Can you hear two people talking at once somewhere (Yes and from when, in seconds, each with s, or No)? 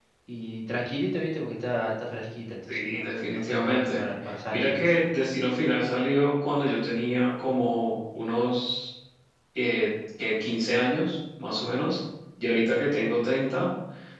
Yes, from 2.7 s